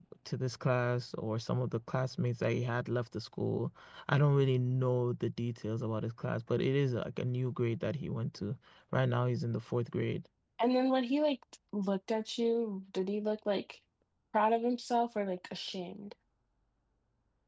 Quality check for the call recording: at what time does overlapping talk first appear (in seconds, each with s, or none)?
none